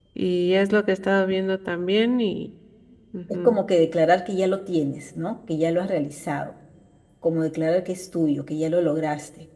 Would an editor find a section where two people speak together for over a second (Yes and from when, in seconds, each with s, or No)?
No